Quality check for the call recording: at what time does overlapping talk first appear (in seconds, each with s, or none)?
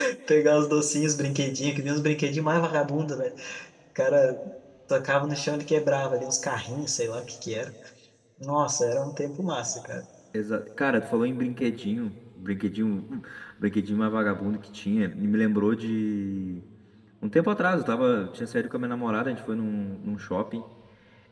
none